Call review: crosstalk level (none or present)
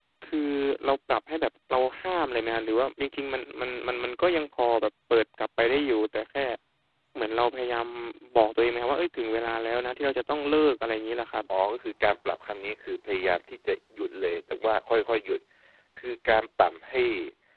none